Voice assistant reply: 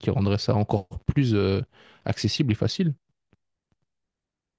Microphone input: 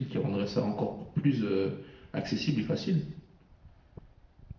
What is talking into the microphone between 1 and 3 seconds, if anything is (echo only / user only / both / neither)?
echo only